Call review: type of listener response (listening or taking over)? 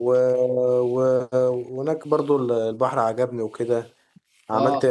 listening